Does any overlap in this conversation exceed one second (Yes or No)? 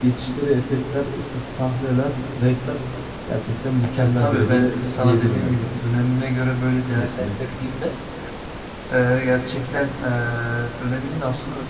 Yes